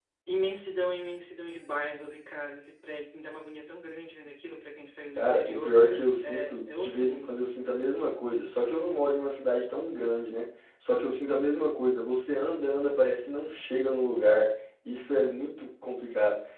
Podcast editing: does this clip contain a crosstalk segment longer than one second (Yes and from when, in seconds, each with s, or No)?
Yes, from 5.2 s